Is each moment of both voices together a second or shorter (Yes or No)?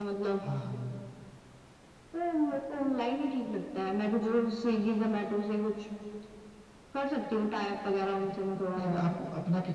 Yes